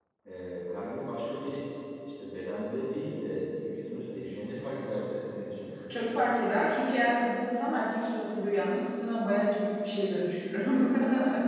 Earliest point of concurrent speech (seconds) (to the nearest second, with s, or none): none